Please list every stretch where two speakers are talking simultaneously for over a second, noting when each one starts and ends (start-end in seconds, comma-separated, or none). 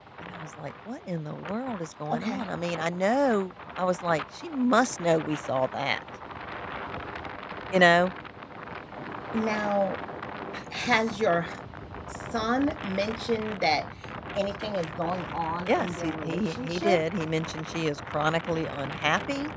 15.7-17.0